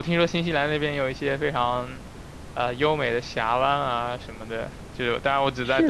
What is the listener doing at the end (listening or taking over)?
listening